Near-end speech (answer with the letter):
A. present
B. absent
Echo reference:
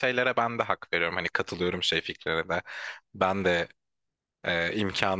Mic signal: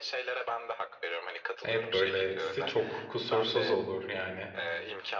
A